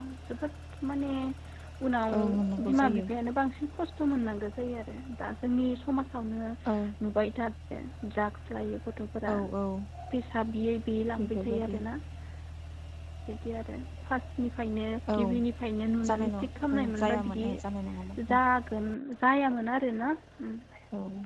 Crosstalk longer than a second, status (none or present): present